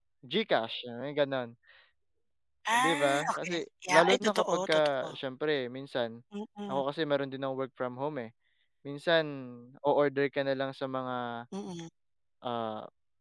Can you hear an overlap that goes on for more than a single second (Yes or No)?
Yes